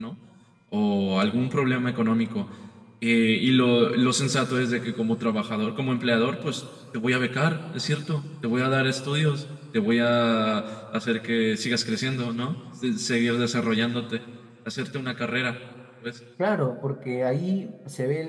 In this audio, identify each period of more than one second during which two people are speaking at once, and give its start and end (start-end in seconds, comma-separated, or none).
none